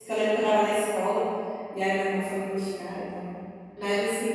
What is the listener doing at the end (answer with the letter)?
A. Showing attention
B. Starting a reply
A